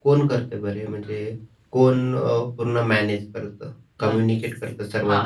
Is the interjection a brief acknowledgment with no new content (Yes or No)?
No